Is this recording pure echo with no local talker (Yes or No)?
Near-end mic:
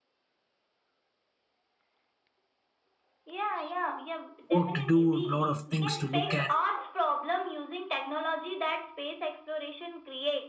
No